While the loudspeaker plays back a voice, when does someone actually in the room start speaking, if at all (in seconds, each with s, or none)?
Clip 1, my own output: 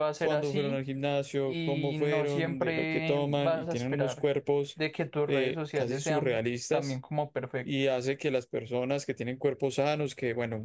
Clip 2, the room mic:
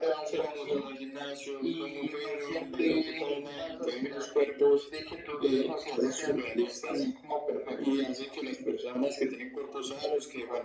none